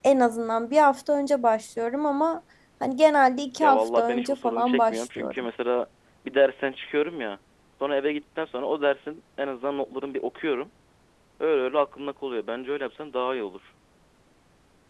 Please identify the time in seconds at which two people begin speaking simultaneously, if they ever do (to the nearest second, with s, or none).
4 s